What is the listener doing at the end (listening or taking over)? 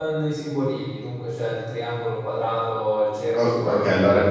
taking over